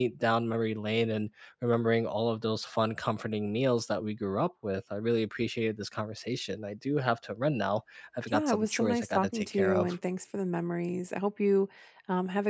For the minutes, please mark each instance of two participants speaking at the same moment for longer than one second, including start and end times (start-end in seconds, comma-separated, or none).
8.3-9.9